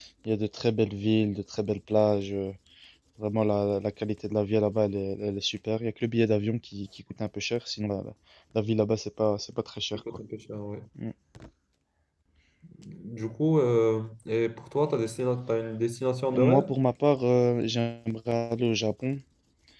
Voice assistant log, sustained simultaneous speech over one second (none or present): none